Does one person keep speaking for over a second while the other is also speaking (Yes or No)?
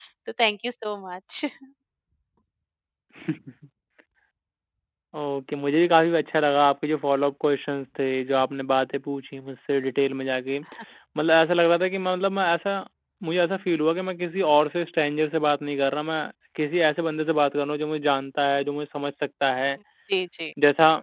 No